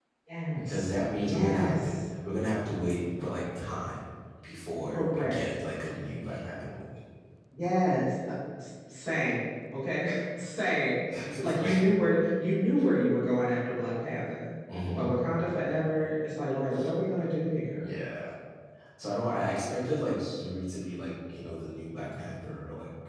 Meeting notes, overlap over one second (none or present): present